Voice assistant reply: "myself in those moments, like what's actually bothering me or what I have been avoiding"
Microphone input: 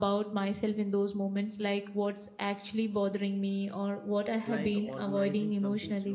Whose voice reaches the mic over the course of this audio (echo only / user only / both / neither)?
both